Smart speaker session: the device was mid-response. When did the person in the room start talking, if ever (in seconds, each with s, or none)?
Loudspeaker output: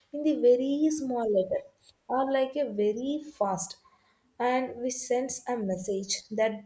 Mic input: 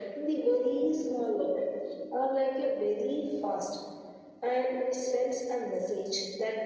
none